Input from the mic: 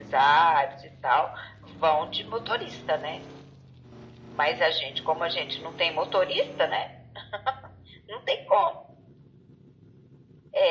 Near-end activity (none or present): none